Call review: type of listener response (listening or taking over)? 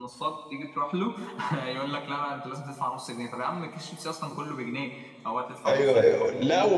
taking over